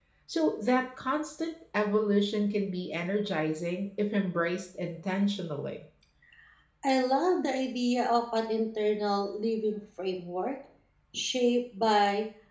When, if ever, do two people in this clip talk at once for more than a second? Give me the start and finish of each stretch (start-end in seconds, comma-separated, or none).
none